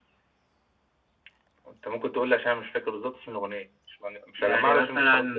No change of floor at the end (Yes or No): No